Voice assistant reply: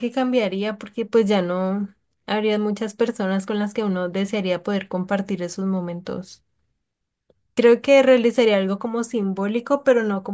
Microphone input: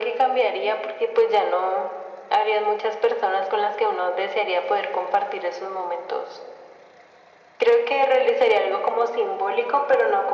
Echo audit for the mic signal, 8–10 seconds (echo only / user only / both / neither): echo only